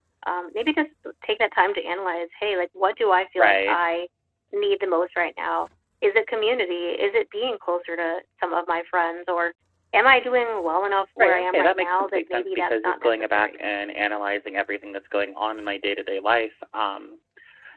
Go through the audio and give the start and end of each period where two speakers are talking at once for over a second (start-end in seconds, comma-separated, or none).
11.2-13.6